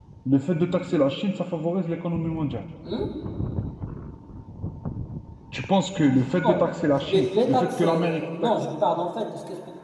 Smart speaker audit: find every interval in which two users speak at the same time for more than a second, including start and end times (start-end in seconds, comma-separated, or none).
7.0-8.5